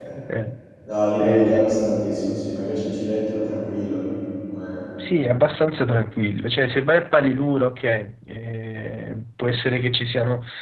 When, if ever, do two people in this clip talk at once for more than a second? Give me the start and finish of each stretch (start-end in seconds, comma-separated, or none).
none